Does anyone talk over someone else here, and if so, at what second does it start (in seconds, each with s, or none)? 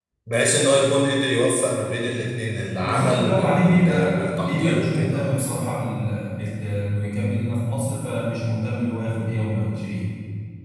2.8 s